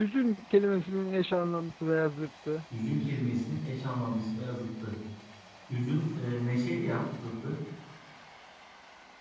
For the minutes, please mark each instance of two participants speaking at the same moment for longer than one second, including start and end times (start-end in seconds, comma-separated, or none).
none